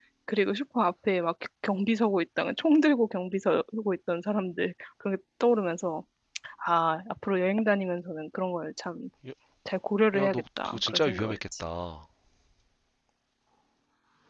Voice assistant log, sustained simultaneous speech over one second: present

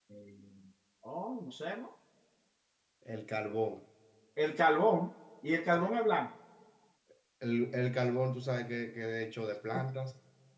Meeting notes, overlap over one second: none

